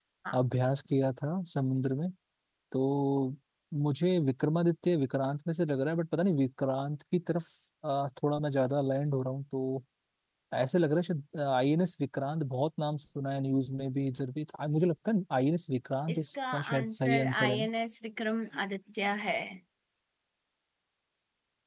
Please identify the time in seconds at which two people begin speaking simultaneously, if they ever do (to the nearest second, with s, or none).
16 s